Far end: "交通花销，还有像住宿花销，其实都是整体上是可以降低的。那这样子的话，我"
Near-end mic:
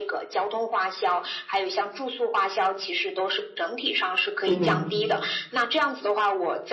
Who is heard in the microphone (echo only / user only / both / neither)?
both